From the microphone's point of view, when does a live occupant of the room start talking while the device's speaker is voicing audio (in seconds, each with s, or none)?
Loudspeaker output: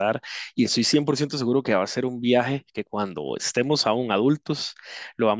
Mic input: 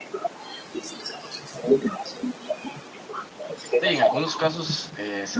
3.8 s